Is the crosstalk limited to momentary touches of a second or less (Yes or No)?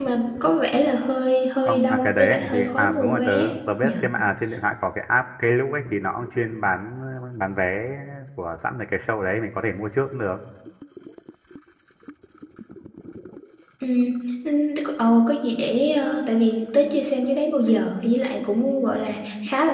No